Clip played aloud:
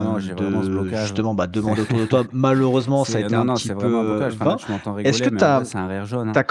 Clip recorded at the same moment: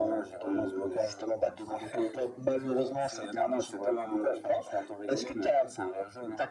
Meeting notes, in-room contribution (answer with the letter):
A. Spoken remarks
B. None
B